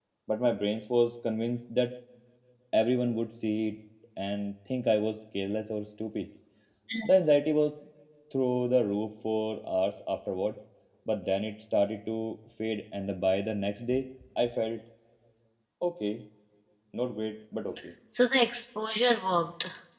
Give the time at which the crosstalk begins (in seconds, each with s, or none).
none